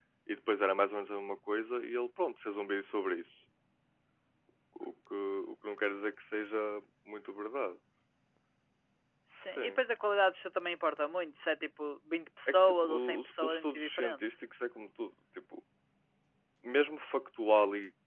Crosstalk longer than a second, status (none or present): present